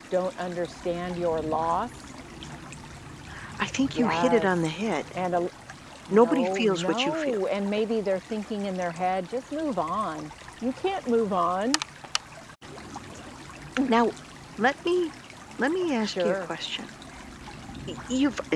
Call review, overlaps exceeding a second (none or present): present